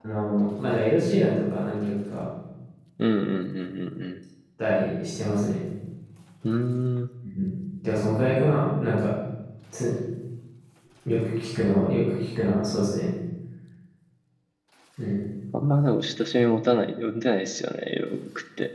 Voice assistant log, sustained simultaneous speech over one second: none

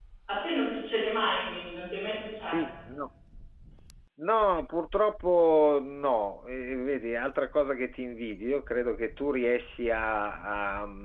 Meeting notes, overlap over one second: none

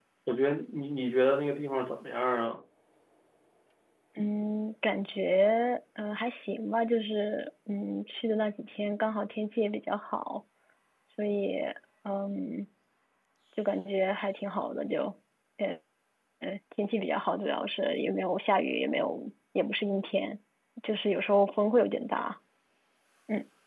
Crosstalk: none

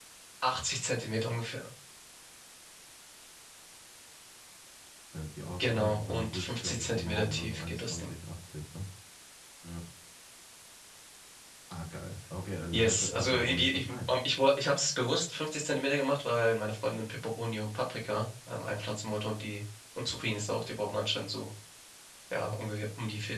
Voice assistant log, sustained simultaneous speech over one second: present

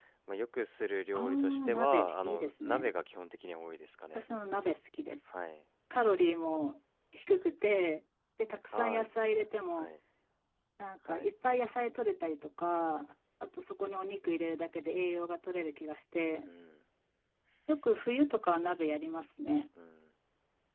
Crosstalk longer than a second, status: present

